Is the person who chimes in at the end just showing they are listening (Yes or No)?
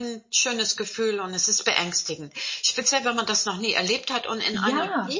Yes